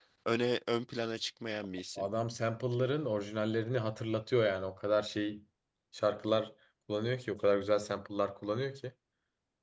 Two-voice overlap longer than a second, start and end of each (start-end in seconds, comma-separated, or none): none